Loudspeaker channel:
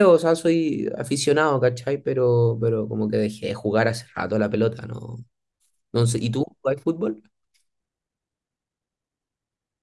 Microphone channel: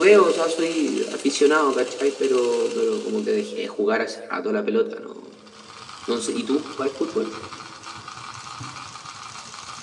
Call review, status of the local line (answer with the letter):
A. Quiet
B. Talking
A